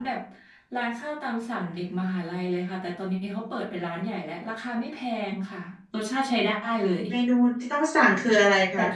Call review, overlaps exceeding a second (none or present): none